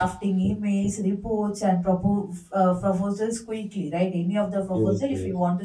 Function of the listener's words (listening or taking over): listening